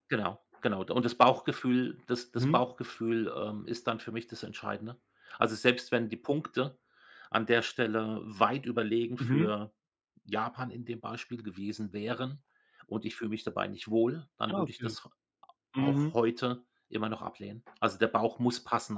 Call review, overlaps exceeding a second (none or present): none